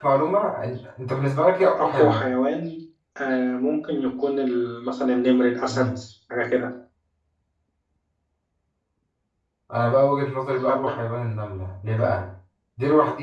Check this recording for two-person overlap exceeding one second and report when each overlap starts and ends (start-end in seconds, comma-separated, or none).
none